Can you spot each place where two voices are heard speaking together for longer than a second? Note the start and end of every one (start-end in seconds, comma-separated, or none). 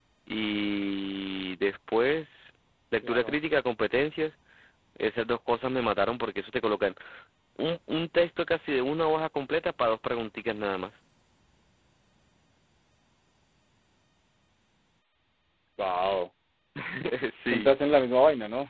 none